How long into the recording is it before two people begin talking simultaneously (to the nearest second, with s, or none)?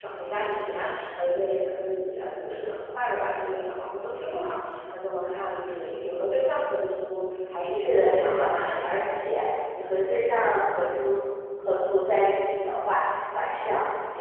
8 s